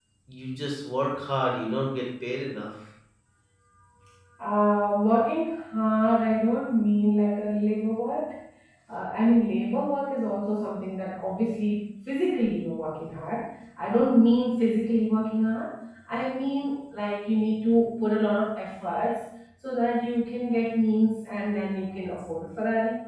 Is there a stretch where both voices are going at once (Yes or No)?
No